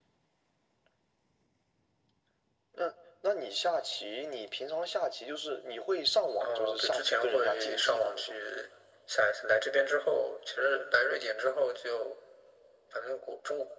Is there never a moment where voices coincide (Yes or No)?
No